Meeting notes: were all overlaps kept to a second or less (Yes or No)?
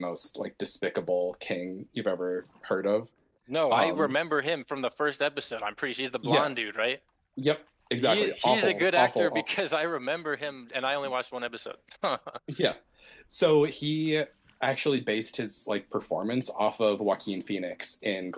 No